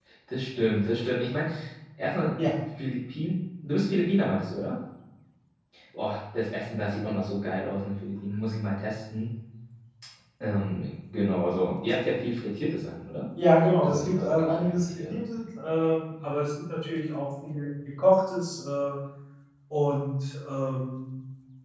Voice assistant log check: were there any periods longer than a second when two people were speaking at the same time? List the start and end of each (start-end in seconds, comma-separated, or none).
13.8-15.2